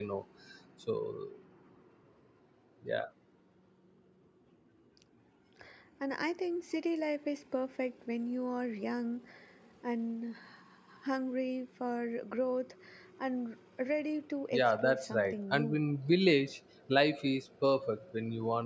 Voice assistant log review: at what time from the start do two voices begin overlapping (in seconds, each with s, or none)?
14.5 s